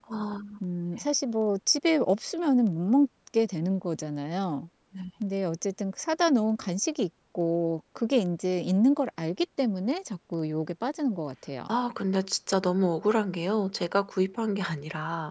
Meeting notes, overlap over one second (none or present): none